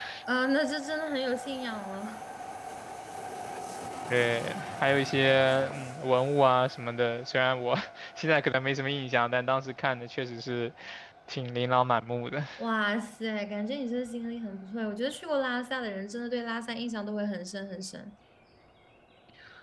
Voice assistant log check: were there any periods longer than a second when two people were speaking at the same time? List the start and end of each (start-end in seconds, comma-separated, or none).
none